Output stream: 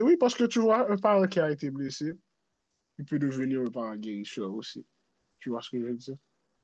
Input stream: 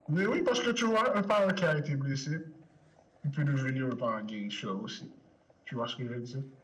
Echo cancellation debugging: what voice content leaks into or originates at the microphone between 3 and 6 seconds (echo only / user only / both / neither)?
echo only